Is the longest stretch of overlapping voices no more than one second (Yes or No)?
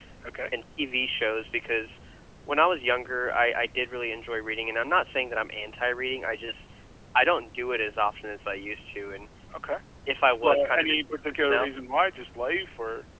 No